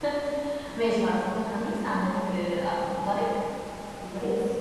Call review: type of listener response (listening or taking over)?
listening